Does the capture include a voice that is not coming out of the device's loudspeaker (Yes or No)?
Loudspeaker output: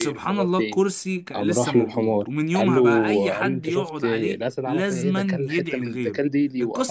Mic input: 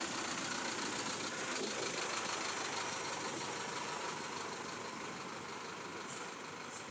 No